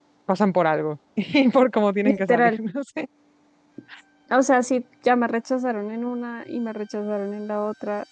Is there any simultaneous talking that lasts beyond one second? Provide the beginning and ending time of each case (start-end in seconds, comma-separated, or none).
none